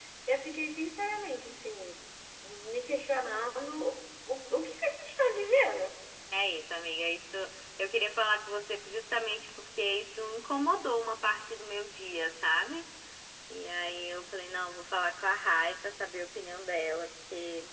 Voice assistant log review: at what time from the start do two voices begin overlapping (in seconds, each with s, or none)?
none